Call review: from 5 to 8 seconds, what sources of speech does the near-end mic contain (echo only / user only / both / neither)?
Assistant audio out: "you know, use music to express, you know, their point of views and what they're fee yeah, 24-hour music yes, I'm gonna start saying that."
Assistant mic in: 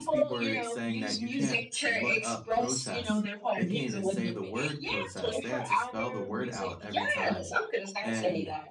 both